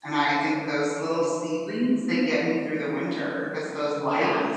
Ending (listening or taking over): listening